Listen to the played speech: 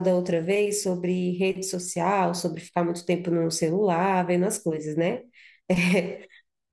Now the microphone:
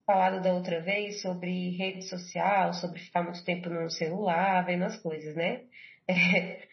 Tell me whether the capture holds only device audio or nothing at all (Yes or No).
Yes